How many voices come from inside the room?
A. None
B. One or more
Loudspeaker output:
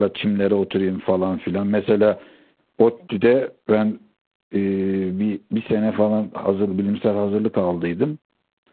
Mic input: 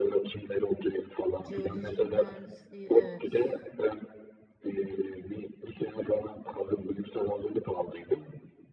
B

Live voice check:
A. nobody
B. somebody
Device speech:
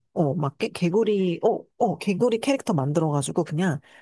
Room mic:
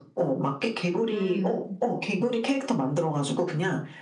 B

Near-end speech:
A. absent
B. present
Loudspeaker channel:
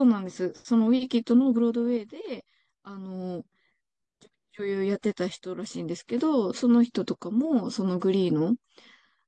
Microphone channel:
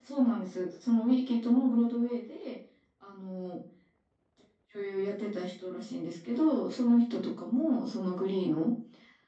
A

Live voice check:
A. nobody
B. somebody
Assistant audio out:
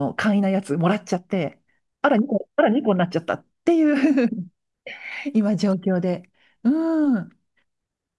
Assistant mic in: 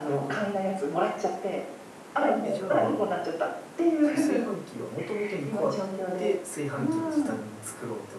B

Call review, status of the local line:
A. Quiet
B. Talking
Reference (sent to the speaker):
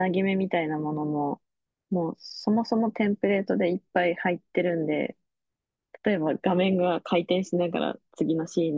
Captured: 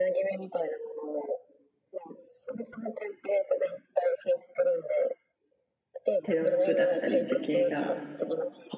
B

